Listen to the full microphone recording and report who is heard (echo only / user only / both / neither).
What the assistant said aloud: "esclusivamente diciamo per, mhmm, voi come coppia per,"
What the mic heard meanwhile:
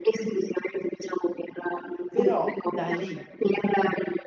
both